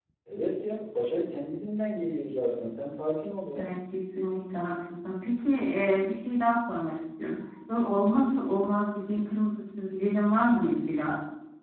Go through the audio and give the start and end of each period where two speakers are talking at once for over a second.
none

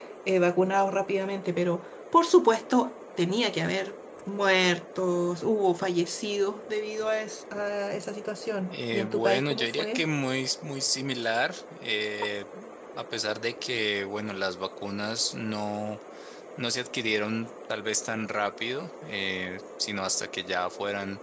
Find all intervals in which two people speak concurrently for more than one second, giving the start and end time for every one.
8.7-10.0

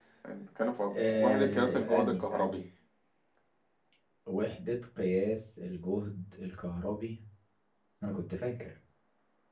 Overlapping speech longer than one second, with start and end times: 1.2-2.5

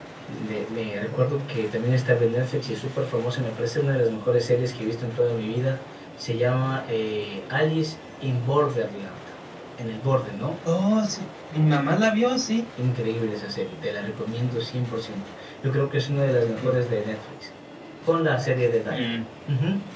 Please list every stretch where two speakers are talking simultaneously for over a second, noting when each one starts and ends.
none

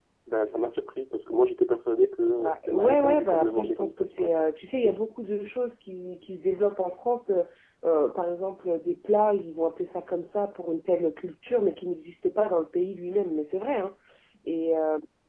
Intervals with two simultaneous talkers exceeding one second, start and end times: 2.3-4.4

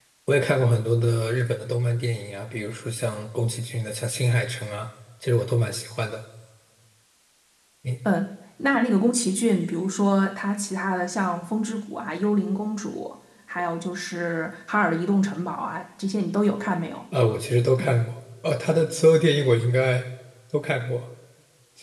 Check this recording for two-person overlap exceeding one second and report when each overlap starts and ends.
none

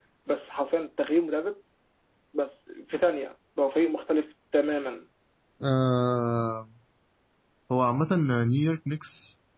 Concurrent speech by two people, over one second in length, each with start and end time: none

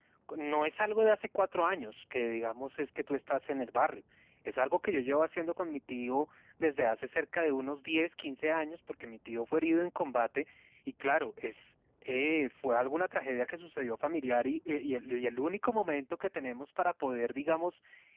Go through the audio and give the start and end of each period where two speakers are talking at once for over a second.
none

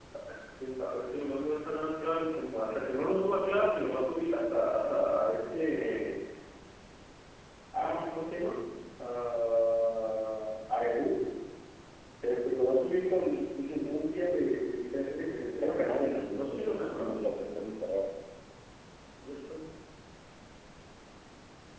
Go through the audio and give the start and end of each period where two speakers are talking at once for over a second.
15.6-17.3

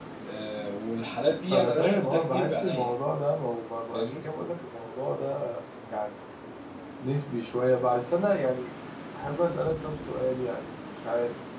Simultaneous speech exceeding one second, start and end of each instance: 1.5-3.0

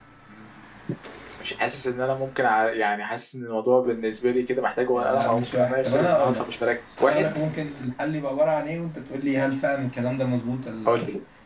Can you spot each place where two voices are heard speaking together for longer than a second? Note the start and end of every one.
4.9-6.4

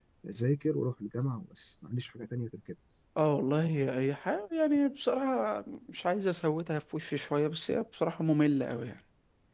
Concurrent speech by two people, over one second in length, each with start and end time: none

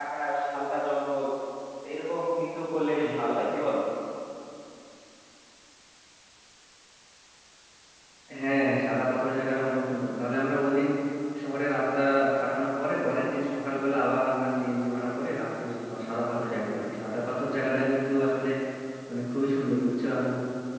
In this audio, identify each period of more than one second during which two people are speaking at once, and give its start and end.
none

